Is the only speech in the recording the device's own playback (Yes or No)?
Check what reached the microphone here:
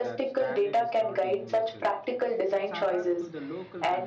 No